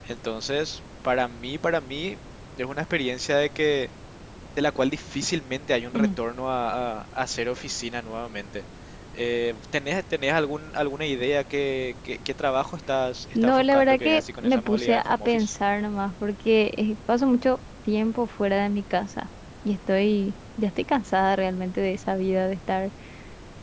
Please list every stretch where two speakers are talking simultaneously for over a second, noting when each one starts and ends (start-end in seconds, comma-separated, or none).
13.3-15.5